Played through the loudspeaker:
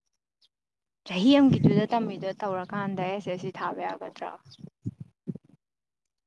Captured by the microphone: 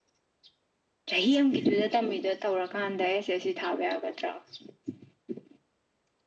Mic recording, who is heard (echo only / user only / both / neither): echo only